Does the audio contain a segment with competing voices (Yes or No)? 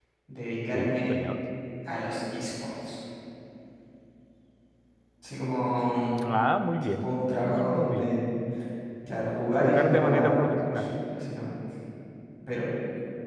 Yes